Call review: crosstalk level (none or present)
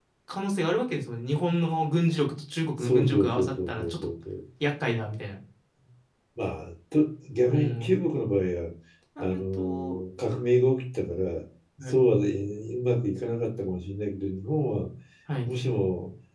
present